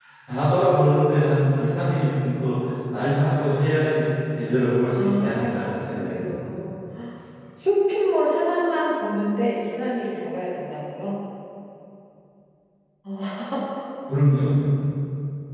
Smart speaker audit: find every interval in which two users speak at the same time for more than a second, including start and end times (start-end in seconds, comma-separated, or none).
5.0-6.5